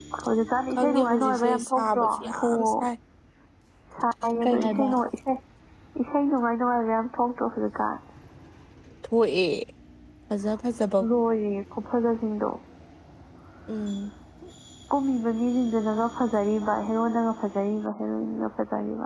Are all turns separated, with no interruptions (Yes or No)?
No